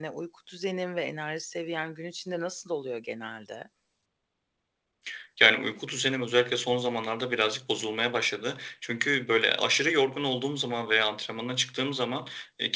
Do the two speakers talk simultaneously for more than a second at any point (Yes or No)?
No